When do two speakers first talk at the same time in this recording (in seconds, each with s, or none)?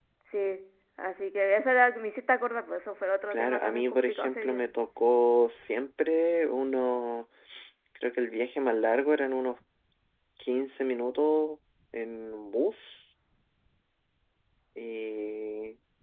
3.3 s